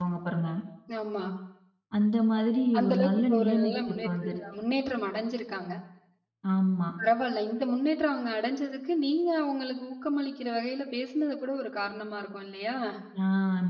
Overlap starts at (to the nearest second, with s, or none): 3 s